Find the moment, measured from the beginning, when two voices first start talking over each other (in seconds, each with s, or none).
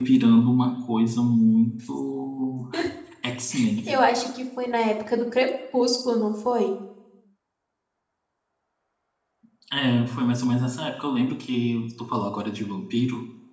none